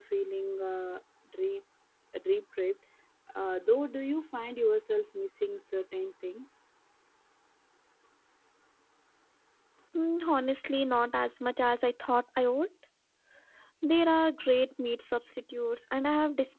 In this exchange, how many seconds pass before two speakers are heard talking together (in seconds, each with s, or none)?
none